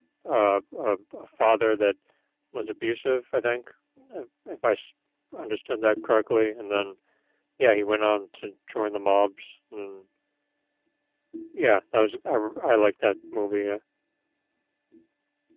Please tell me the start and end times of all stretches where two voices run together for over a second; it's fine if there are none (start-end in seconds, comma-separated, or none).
none